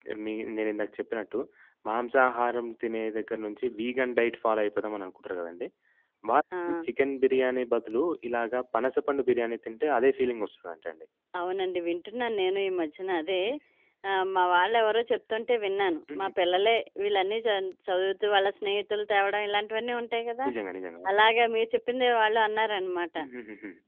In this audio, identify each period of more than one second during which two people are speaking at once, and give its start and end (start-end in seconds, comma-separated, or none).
none